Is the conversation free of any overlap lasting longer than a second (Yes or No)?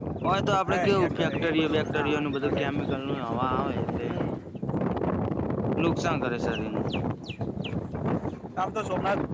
No